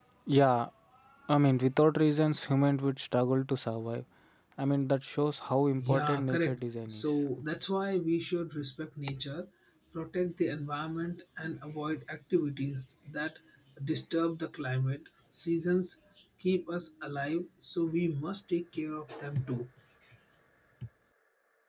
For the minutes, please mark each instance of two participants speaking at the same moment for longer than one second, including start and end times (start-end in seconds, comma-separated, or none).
5.8-7.2